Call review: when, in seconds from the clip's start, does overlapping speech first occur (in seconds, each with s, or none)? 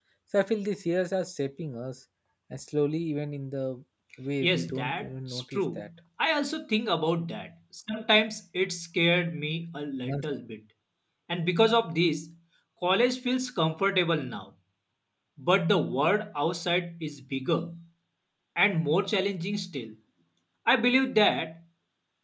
4.4 s